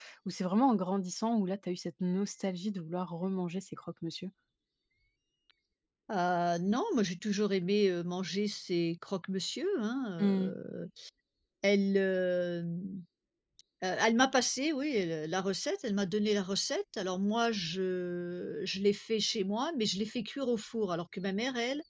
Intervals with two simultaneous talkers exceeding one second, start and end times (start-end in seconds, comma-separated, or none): none